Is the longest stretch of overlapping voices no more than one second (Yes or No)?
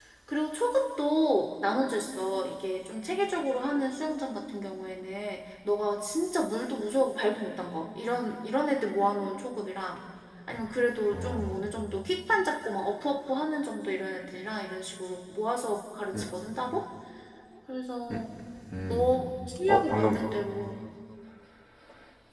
Yes